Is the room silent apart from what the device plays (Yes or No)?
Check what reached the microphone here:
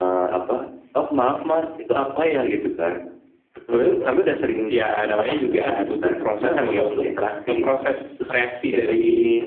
Yes